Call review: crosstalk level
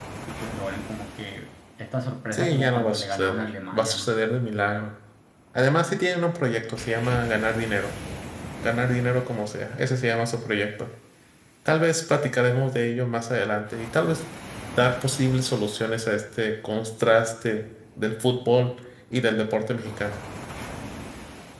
present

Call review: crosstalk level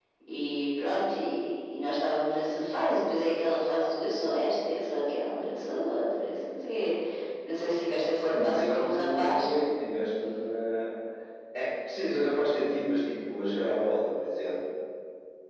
present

